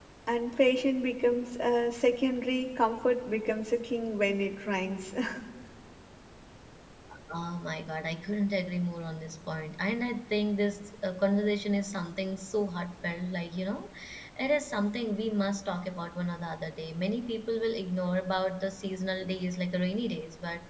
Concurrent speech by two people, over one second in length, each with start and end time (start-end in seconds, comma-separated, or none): none